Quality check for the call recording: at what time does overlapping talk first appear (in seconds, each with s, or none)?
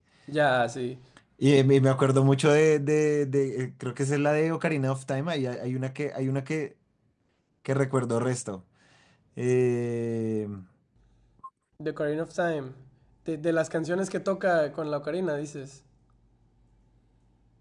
none